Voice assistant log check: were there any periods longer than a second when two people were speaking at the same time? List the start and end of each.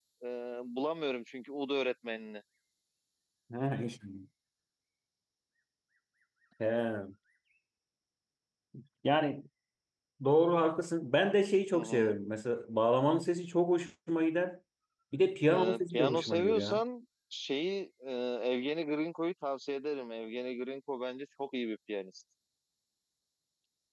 15.5-16.8

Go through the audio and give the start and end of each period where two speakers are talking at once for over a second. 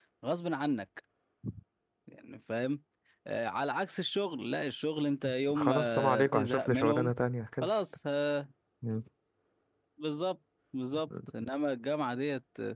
5.5-7.1

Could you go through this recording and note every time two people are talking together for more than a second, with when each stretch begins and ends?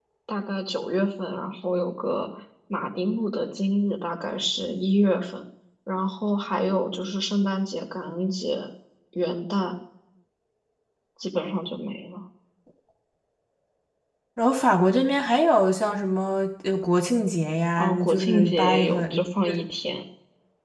17.8-19.0

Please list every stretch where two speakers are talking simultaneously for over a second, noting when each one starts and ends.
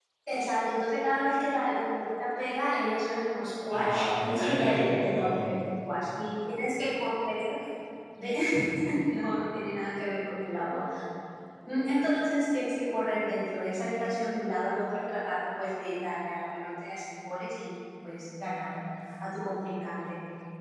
3.7-5.4

